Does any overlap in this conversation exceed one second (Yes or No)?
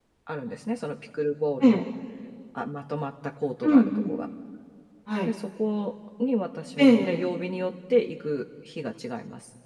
No